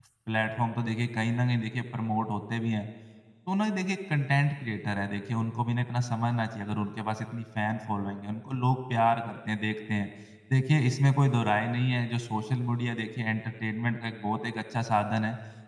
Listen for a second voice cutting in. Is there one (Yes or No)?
No